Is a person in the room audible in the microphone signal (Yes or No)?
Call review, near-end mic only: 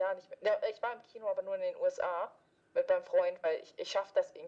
No